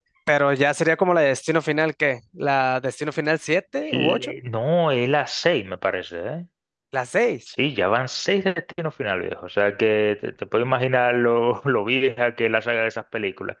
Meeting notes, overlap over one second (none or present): none